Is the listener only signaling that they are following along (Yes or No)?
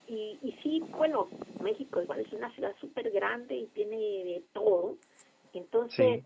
Yes